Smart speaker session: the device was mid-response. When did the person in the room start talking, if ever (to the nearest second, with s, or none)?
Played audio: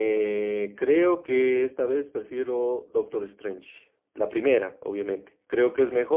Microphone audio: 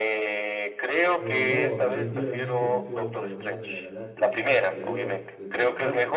1 s